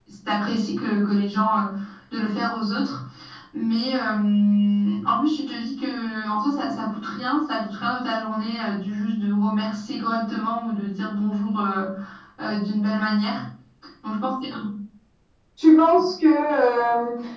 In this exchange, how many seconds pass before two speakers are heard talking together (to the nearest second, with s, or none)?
none